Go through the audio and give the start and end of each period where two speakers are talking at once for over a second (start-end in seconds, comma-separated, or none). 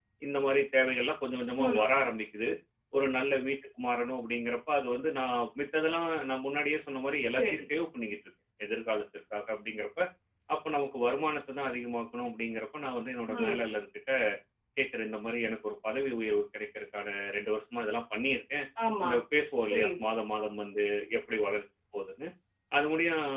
none